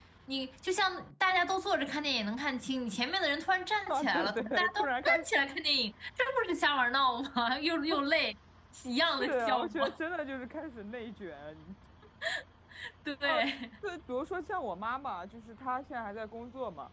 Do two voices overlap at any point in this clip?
Yes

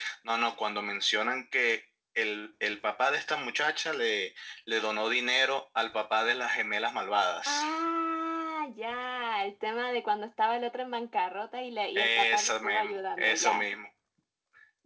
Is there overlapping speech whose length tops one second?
Yes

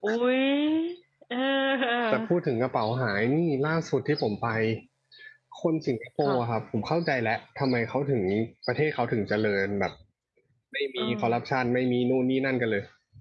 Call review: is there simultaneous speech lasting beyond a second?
No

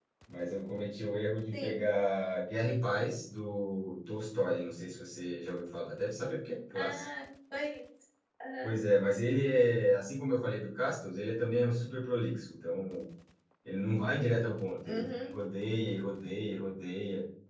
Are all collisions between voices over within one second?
Yes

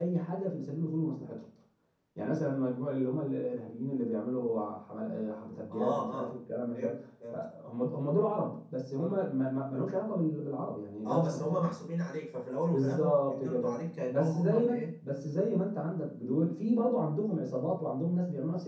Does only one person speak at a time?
No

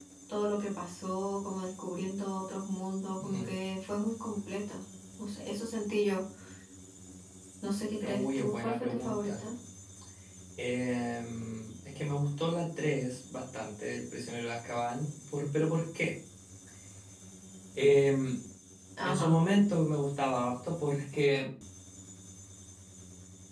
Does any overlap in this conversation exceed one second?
Yes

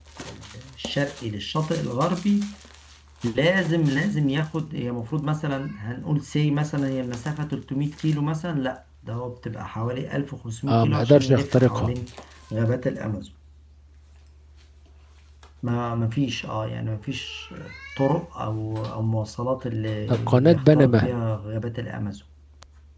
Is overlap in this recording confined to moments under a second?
No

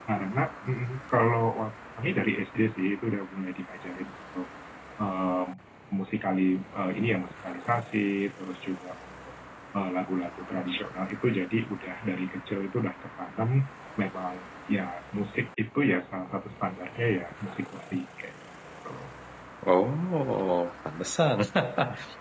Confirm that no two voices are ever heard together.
Yes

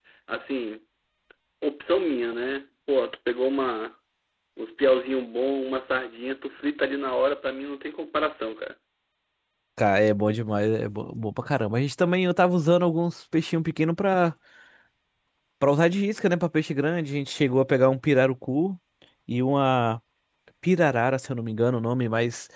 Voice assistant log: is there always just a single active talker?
Yes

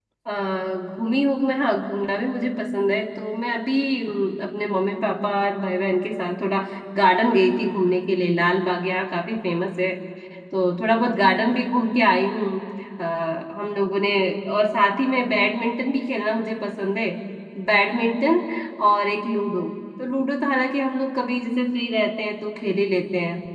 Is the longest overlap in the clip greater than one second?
No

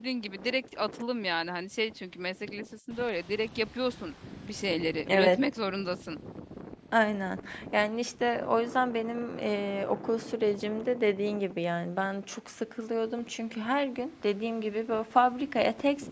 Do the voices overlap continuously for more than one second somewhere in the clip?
No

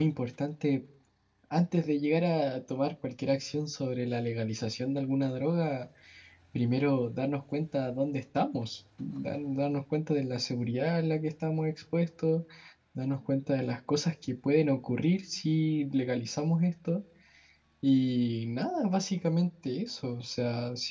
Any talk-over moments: No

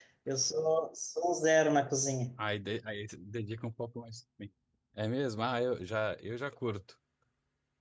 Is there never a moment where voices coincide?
Yes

